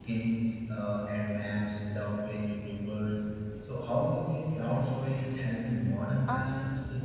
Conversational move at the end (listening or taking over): taking over